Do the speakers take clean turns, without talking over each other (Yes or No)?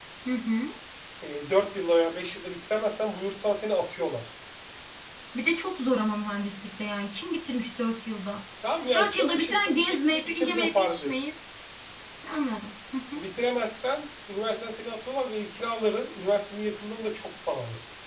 No